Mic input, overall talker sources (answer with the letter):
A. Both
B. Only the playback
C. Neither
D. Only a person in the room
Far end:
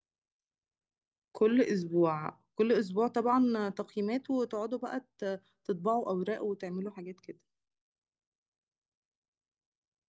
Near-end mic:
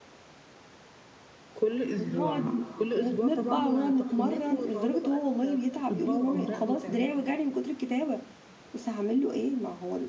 A